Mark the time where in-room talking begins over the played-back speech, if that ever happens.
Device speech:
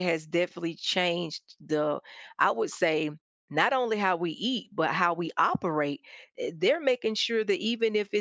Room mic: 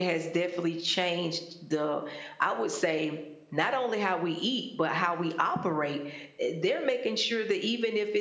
none

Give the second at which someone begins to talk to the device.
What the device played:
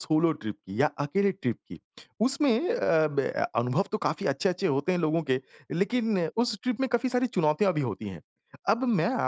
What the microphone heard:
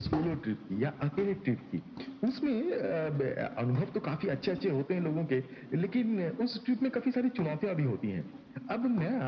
none

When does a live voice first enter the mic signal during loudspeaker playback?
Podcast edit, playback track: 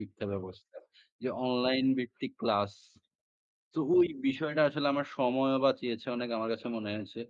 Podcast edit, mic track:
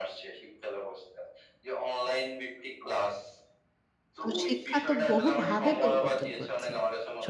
4.2 s

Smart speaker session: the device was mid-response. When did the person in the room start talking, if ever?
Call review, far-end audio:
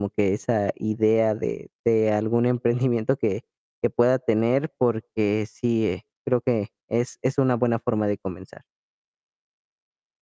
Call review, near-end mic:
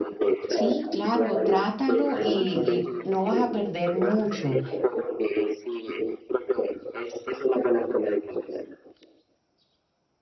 0.5 s

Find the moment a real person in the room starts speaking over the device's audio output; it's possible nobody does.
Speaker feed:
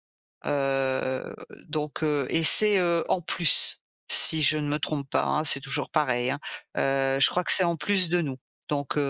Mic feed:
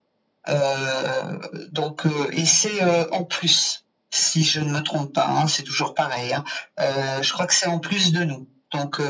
none

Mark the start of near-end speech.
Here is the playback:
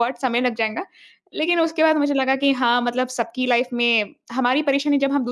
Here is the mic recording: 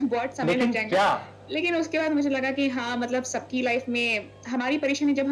0.4 s

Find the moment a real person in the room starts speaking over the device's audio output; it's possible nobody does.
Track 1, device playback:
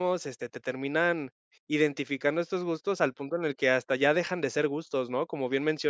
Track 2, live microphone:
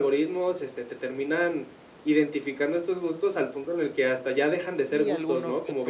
4.9 s

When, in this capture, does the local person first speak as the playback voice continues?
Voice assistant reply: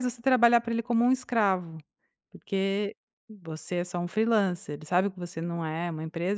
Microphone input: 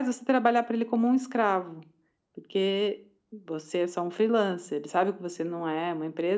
none

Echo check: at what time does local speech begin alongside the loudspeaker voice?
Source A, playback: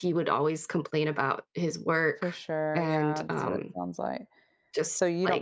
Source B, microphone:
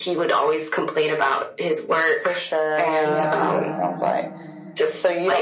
3.0 s

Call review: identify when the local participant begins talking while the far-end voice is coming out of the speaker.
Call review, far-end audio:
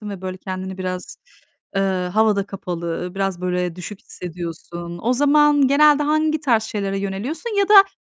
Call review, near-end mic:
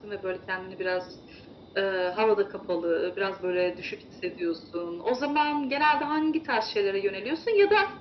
none

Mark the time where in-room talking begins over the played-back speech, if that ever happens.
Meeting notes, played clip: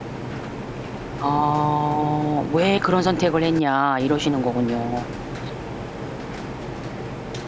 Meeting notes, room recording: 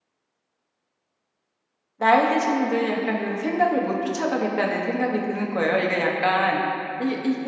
2.0 s

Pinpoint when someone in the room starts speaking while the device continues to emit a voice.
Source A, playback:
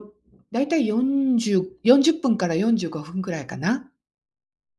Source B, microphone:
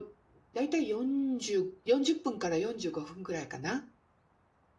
none

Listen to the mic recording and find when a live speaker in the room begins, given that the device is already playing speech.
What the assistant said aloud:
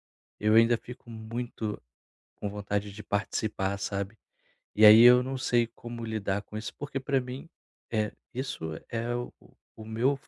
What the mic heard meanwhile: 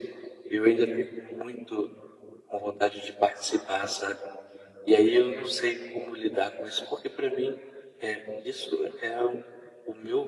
none

